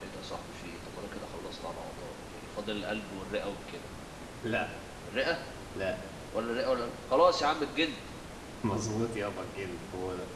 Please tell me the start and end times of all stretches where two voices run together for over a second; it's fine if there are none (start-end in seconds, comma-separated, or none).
none